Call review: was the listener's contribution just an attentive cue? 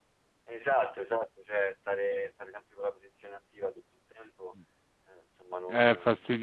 No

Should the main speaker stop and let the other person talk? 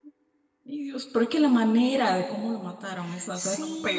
Yes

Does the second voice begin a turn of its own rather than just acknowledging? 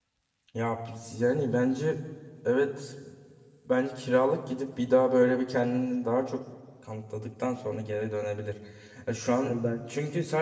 No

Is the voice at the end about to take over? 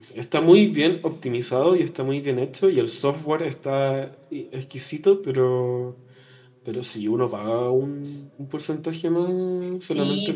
Yes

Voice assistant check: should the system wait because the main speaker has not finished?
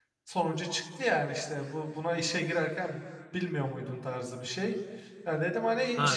No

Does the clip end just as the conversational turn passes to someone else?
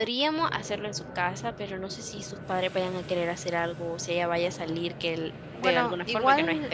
Yes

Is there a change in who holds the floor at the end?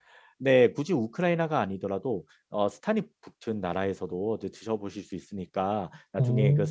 No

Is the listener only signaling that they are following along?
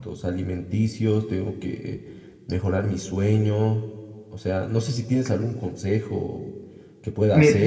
Yes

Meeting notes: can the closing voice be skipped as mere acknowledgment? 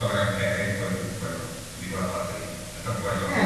No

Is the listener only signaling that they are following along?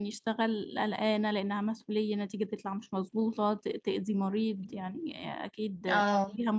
Yes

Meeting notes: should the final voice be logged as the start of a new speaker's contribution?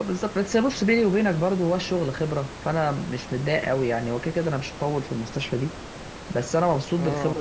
No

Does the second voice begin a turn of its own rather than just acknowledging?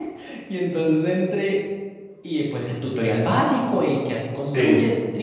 No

